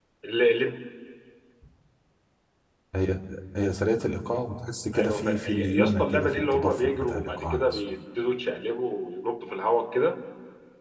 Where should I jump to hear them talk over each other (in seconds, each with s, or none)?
4.9 s